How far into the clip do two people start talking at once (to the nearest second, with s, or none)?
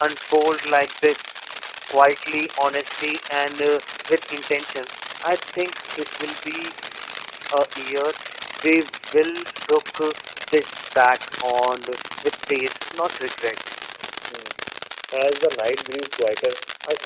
none